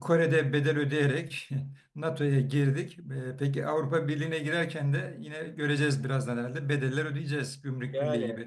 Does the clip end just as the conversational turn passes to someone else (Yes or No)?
Yes